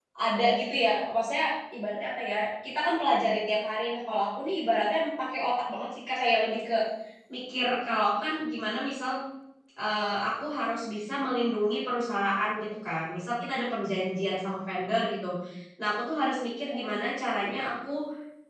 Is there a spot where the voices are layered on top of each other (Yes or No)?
No